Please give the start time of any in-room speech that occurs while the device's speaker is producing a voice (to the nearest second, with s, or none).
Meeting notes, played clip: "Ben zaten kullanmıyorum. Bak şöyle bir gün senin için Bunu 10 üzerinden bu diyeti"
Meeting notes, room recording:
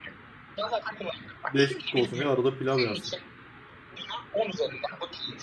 1 s